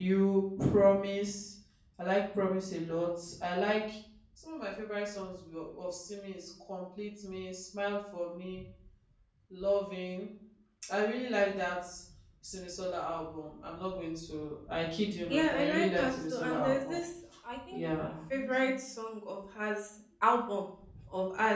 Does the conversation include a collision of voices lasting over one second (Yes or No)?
Yes